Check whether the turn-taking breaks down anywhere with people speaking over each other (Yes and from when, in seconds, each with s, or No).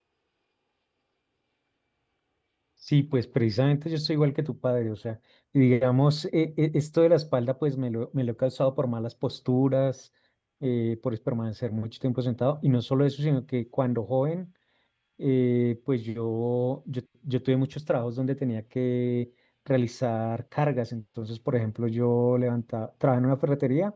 No